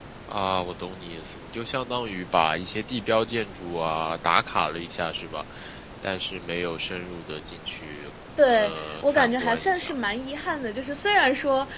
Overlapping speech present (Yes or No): Yes